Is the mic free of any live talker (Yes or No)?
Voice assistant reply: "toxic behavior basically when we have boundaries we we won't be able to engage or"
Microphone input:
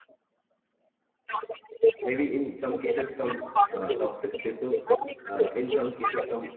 No